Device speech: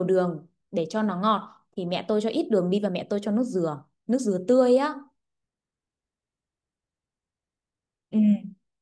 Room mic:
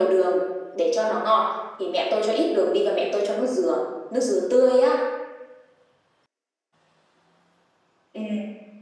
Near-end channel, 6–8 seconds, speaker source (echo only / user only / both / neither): neither